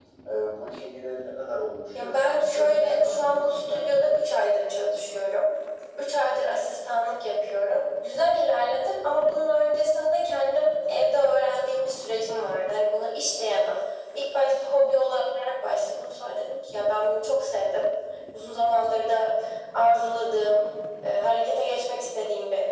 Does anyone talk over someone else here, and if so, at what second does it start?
1.9 s

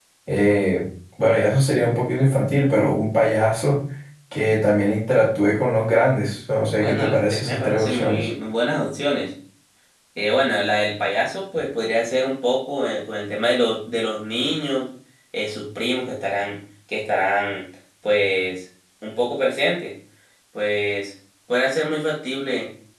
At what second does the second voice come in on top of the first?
6.8 s

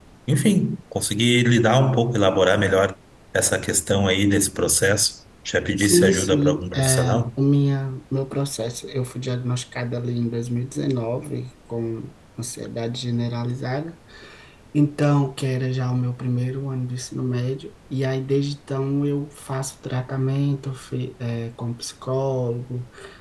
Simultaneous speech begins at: 5.8 s

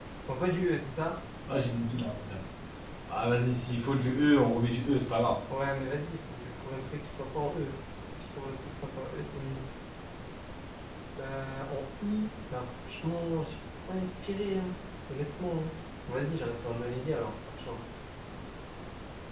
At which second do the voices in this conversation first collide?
none

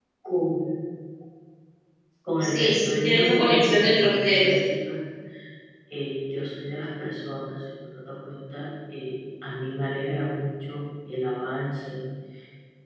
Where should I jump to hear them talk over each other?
2.4 s

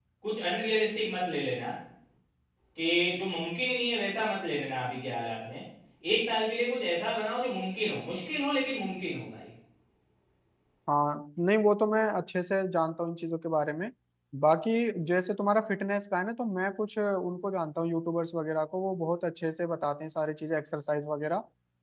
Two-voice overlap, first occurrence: none

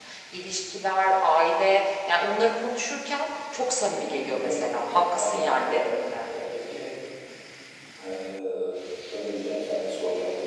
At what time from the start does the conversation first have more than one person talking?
3.9 s

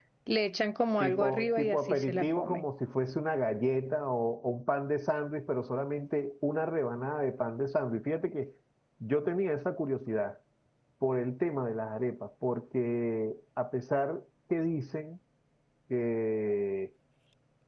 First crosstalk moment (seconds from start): 1.0 s

